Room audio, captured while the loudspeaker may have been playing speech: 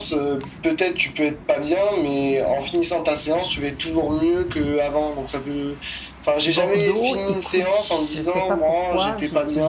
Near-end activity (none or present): present